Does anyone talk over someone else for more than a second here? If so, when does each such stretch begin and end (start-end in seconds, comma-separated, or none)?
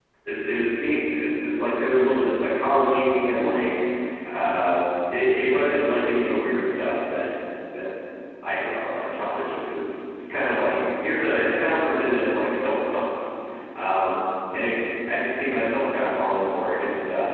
none